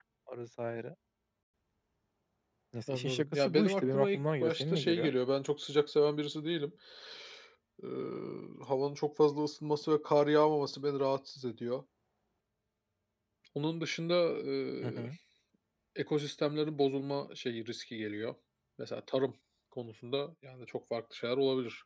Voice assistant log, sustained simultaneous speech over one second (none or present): present